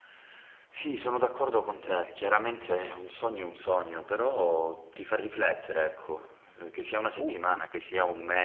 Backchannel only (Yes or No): Yes